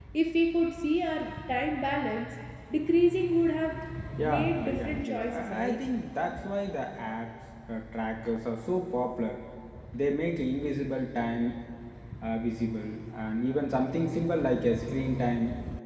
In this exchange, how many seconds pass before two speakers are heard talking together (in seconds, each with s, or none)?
4.2 s